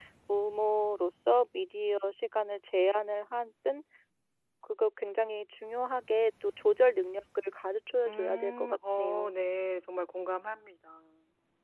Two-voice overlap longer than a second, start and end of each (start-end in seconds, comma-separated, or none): 8.1-9.3